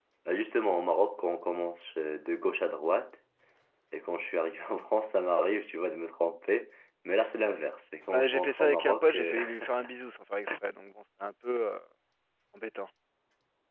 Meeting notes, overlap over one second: present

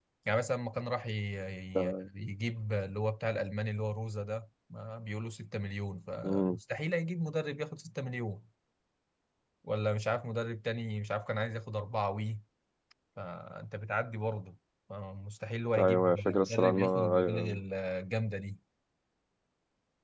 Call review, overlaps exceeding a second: present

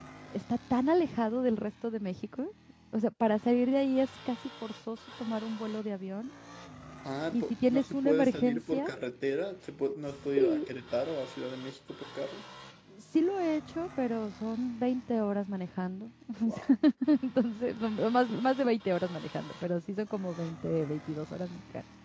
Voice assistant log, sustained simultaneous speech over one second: present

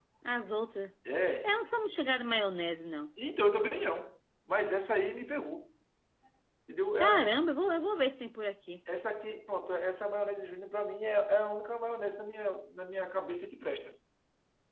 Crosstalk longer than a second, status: none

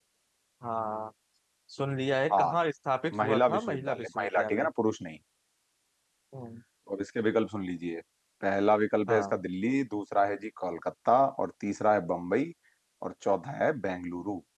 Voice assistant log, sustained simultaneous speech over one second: present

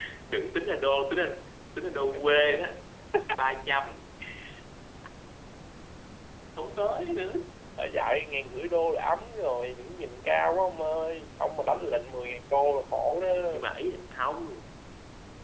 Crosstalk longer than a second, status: none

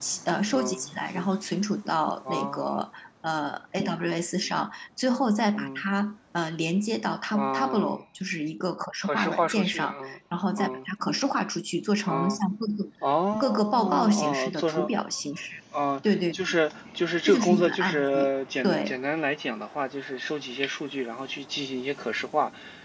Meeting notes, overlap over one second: present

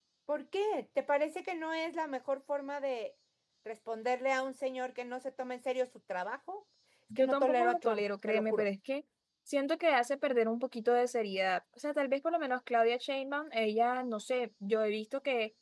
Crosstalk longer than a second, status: present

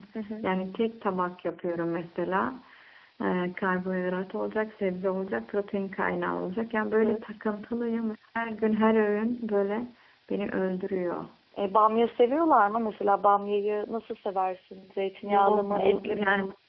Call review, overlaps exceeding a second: present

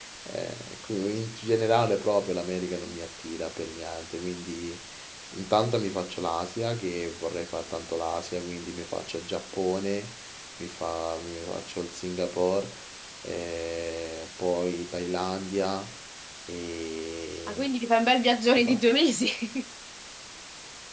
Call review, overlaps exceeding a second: none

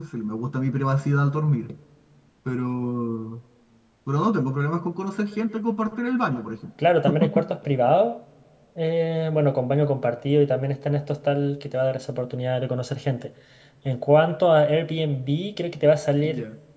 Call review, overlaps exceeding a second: none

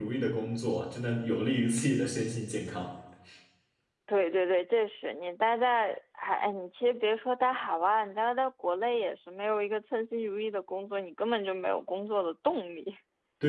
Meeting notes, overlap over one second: none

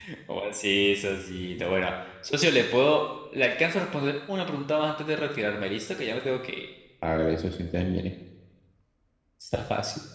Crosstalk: none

